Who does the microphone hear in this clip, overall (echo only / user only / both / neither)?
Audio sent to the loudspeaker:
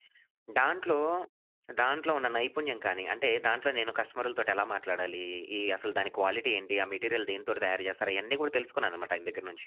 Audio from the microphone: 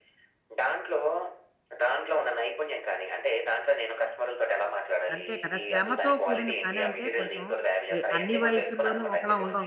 both